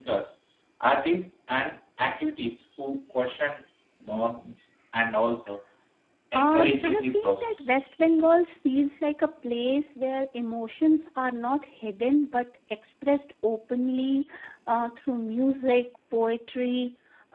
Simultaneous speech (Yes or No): Yes